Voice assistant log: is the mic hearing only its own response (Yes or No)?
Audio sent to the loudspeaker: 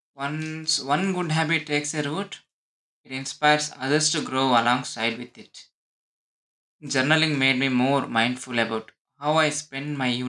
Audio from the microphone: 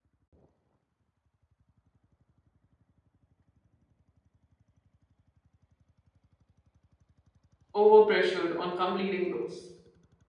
No